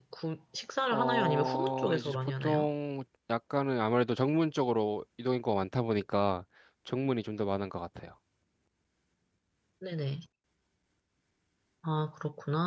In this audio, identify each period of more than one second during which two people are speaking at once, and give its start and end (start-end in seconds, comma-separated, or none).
0.9-2.7